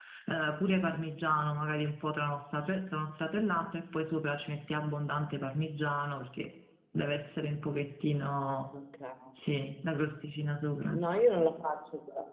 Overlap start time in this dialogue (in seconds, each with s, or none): none